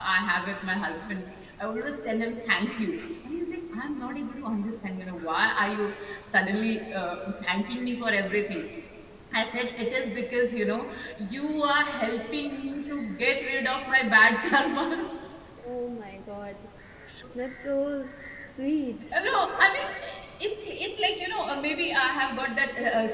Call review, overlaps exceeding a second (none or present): none